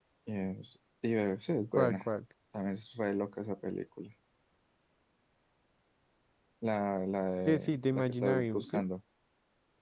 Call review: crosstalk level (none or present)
present